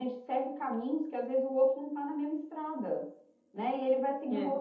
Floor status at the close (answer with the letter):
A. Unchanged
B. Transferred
A